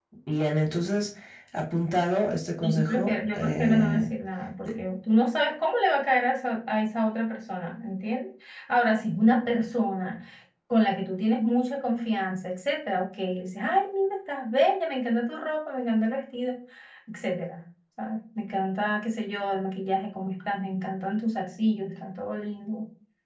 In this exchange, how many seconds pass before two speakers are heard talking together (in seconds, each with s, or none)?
2.6 s